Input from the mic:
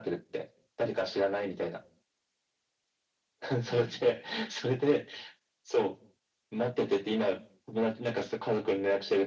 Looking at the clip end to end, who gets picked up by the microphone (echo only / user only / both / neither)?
both